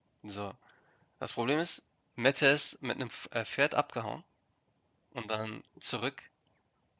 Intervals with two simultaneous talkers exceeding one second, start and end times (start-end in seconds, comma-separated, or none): none